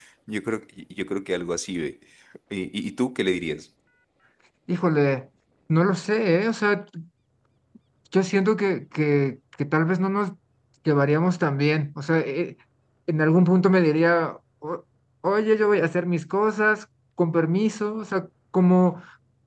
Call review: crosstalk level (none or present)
none